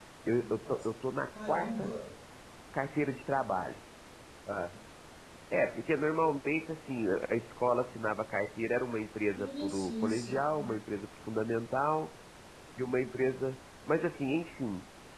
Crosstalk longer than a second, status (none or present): present